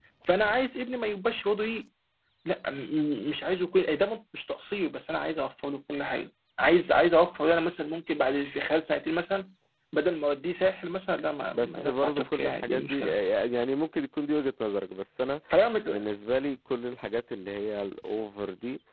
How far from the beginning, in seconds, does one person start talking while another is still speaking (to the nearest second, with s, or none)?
12 s